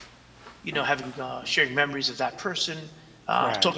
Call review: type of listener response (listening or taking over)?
listening